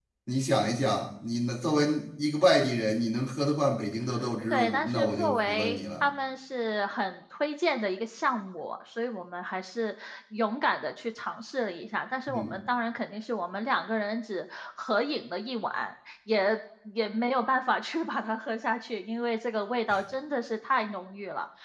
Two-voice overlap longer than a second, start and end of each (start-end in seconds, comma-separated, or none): 4.5-6.0